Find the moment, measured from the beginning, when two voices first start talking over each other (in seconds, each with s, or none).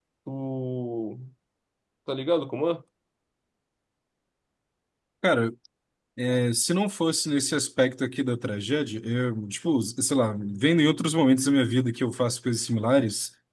none